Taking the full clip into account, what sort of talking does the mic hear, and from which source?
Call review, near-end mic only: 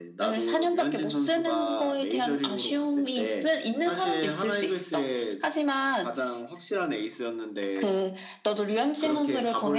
echo only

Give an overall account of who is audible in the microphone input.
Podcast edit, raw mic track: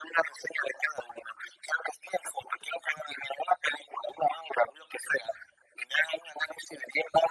echo only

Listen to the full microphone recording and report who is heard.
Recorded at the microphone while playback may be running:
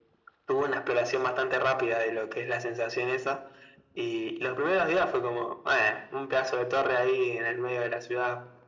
echo only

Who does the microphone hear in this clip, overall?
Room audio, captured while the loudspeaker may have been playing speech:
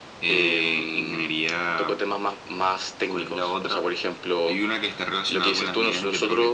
echo only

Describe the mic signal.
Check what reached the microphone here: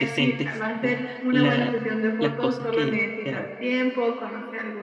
both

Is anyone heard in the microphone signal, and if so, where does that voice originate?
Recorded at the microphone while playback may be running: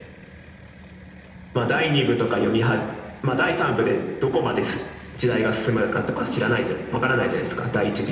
echo only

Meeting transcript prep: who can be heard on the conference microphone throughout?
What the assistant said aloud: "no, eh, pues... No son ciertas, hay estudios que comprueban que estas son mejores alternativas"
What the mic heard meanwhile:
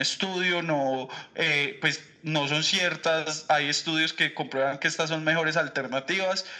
echo only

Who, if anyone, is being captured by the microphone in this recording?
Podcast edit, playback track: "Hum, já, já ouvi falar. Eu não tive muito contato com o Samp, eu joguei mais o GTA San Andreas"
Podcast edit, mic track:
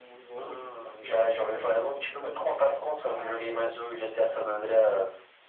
both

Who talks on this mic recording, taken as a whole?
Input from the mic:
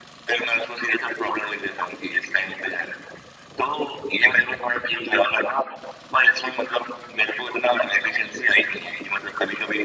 echo only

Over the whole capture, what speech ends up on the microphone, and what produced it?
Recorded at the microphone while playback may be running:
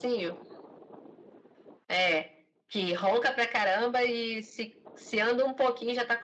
echo only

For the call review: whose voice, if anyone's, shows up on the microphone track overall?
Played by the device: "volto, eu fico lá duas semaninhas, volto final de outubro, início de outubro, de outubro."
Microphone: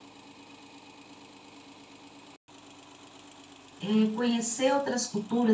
user only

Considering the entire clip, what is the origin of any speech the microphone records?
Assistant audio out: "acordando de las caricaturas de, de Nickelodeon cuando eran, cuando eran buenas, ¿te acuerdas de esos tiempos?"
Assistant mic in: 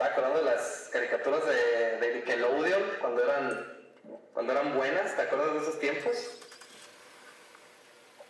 echo only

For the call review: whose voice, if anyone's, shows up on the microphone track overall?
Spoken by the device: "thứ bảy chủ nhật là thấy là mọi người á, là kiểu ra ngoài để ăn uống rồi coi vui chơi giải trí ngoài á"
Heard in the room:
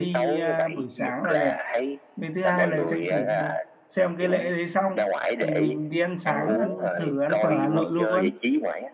both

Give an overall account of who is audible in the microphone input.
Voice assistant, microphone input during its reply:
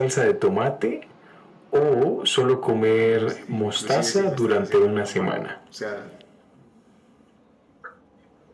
both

